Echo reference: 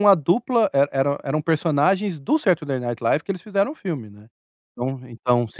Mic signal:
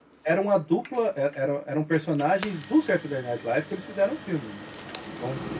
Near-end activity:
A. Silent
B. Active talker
A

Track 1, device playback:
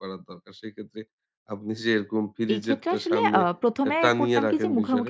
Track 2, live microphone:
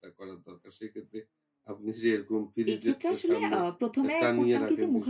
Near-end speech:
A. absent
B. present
A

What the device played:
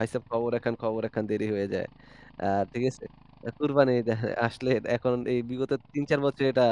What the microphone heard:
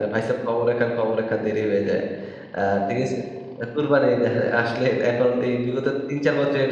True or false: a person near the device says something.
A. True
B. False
B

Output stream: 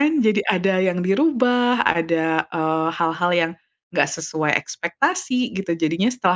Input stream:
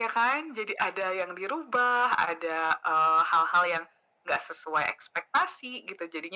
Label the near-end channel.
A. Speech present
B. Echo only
B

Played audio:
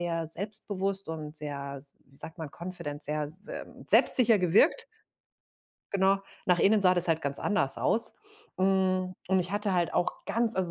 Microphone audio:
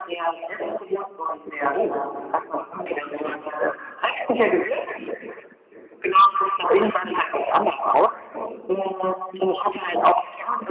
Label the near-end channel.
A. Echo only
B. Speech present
B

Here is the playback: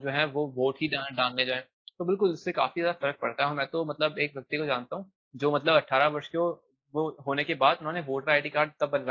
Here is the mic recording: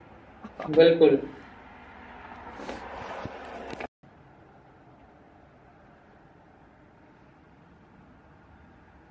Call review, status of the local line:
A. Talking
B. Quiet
A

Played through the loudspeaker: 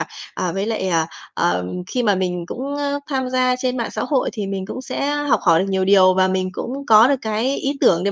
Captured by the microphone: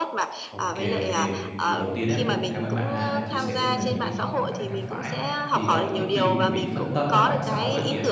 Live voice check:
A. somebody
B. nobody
A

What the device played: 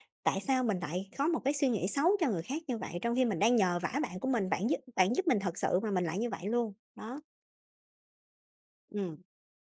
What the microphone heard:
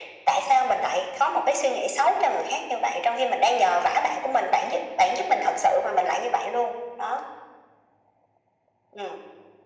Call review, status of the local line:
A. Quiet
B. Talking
A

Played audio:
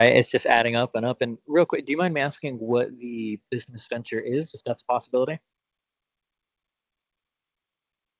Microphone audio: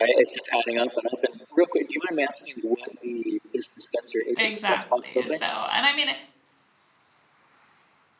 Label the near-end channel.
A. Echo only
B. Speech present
B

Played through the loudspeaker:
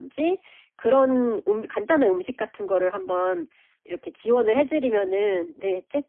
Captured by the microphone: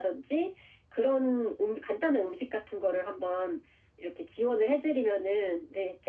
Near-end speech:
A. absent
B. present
A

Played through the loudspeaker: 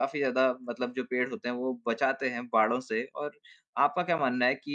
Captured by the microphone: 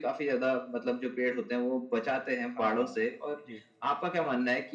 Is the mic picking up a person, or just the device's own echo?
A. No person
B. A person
B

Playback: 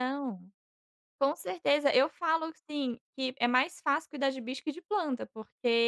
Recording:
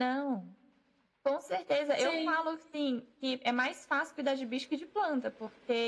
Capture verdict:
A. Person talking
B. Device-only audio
A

